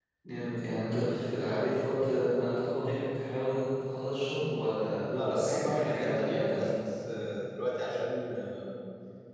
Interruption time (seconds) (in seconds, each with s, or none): 5.1 s